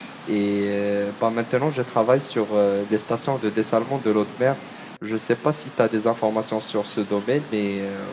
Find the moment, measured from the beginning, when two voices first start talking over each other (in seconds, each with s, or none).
none